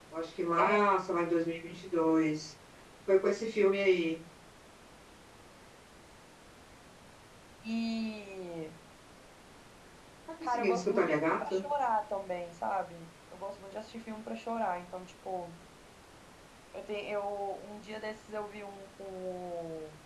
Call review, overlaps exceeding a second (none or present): present